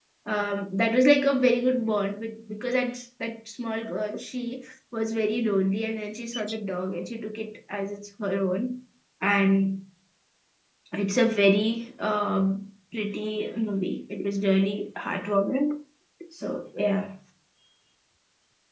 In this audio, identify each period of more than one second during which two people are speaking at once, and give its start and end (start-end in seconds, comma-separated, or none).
none